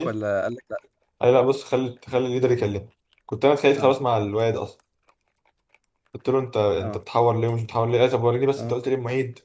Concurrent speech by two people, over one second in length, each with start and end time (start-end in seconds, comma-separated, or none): none